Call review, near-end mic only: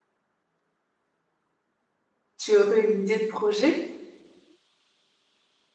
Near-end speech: present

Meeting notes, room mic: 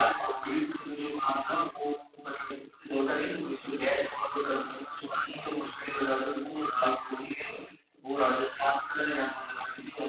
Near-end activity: none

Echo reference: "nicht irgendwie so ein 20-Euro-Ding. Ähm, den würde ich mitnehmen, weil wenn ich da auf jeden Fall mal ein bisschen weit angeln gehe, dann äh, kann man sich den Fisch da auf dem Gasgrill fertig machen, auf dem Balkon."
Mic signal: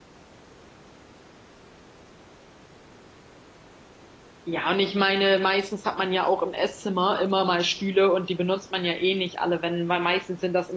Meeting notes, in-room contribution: present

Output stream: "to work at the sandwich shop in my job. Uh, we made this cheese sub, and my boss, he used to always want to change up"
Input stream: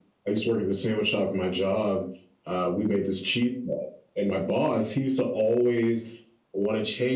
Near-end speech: none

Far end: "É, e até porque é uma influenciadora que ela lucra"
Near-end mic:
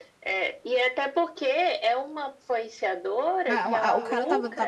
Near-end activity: present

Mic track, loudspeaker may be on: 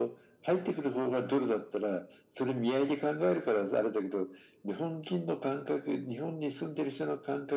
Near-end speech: none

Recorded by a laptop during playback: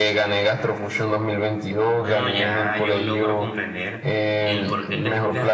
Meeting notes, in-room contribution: present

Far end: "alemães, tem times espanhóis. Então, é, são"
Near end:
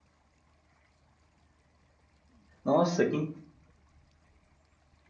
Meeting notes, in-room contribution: present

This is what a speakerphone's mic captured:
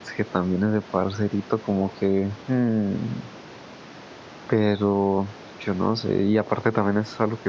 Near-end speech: present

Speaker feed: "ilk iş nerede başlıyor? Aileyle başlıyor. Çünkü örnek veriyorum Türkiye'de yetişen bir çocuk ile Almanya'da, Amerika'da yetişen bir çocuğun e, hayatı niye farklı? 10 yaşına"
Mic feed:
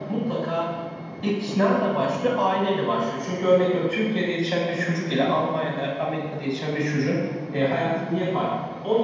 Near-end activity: none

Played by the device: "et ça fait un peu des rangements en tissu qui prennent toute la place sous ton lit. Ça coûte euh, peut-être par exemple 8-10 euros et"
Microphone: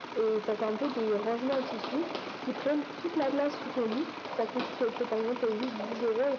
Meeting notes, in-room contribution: none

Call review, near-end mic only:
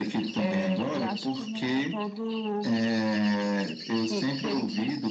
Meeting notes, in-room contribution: none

